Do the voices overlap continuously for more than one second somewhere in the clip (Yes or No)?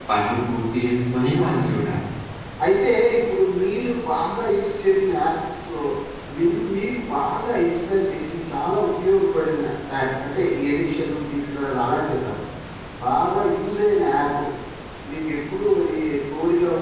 No